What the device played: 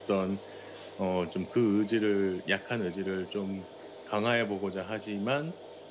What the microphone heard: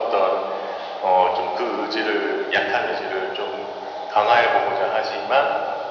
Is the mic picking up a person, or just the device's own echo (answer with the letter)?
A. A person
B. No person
B